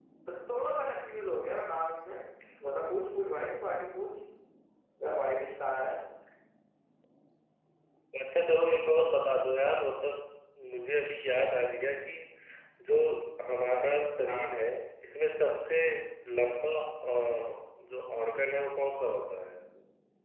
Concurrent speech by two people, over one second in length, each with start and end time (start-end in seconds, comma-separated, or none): none